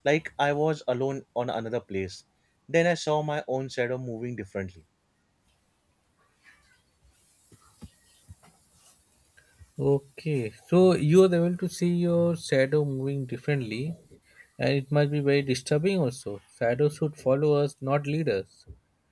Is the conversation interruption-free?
Yes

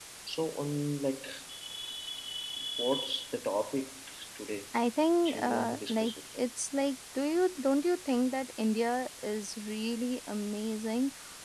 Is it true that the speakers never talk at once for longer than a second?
No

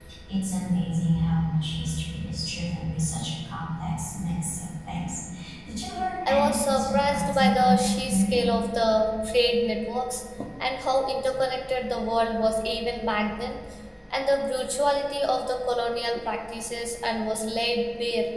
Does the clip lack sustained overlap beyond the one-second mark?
No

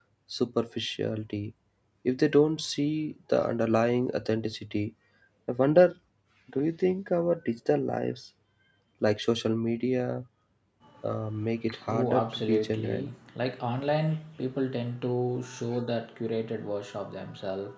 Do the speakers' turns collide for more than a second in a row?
Yes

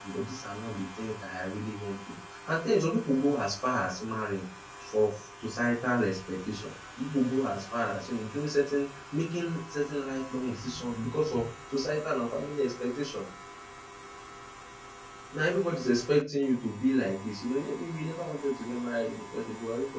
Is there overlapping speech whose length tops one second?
No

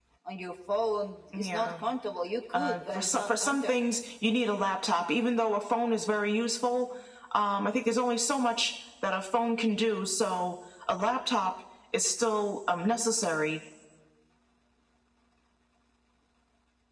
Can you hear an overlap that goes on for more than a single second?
Yes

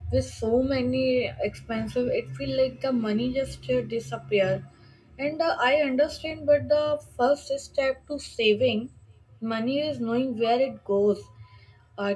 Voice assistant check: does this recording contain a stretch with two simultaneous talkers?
No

